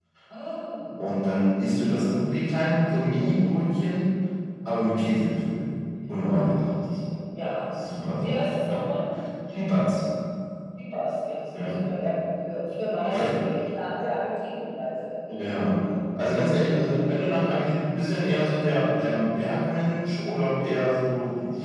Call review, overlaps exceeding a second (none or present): present